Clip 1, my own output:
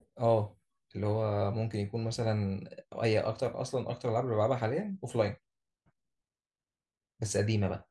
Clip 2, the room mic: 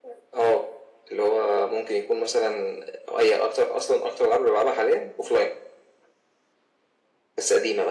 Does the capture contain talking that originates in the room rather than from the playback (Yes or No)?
No